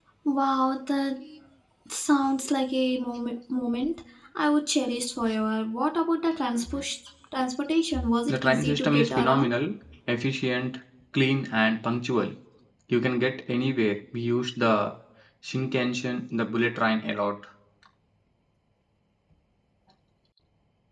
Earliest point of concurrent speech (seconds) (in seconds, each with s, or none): 8.3 s